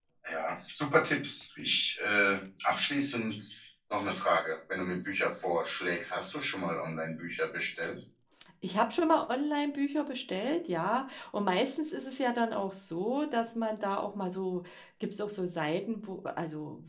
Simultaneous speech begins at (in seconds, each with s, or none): none